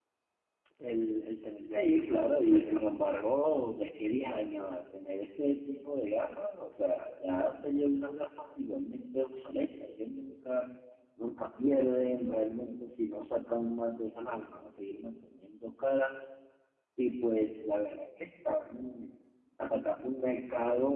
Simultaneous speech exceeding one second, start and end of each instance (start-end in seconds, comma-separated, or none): 1.7-2.9